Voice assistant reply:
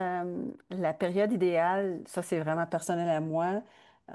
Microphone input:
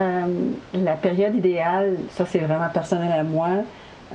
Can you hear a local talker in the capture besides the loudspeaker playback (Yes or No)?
No